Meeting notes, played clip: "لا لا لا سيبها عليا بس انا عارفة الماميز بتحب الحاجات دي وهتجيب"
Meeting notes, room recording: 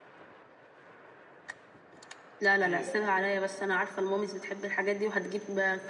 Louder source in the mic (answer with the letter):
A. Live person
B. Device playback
B